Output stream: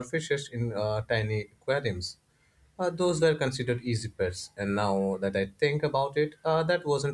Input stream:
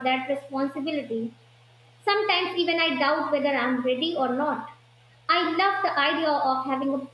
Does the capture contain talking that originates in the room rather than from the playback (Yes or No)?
Yes